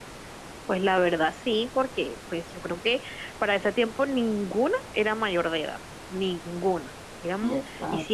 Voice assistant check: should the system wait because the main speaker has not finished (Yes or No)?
Yes